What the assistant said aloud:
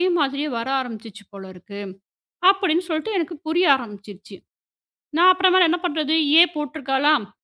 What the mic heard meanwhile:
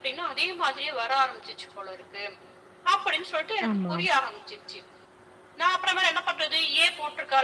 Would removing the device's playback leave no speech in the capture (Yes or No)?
No